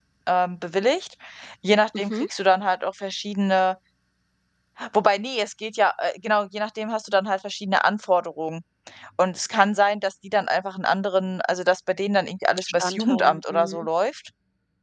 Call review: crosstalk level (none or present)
present